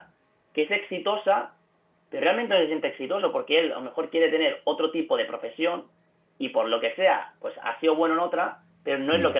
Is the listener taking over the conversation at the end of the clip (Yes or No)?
No